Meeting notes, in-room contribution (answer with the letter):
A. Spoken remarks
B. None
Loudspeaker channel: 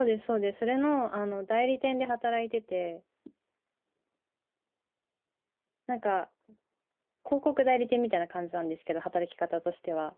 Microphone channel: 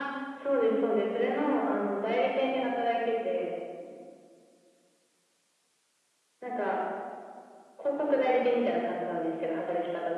B